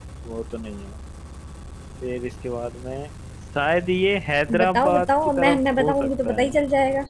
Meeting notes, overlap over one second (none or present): present